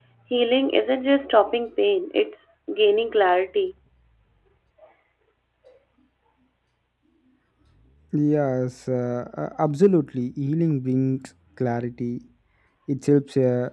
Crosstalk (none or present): none